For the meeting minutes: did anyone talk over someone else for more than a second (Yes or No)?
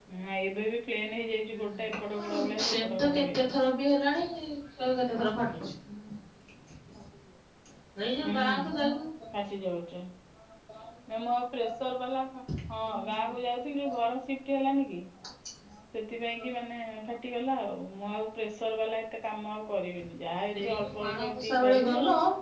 Yes